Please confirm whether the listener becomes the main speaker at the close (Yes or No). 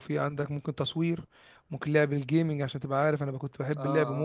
Yes